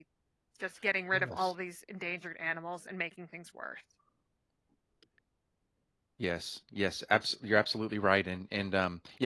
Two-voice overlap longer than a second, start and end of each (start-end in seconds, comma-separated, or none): none